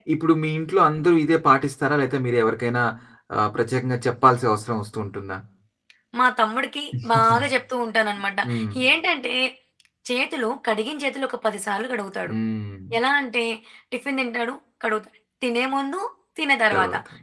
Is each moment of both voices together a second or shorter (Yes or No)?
Yes